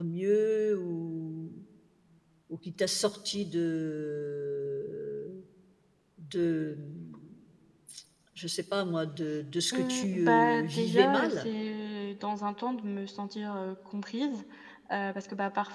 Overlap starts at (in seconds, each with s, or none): 9.7 s